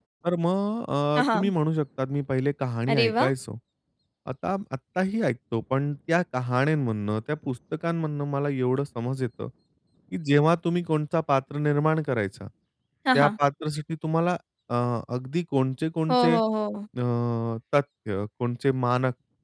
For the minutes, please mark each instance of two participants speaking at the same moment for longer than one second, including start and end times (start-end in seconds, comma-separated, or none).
none